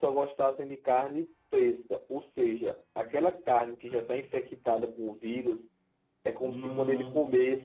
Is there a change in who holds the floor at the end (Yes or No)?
No